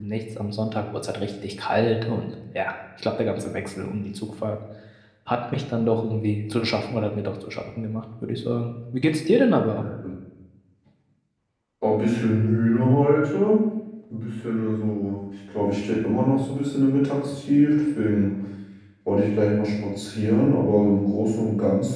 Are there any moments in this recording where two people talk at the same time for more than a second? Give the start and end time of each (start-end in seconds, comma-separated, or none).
none